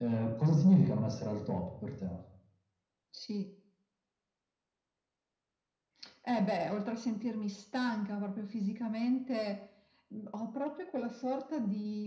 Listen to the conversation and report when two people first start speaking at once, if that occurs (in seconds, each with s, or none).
none